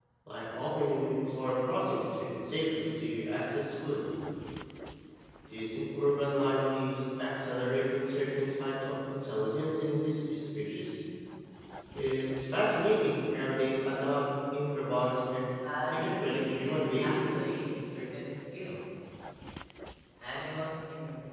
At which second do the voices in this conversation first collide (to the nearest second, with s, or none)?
16 s